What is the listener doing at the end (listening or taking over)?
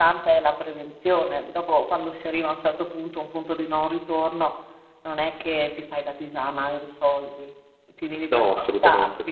listening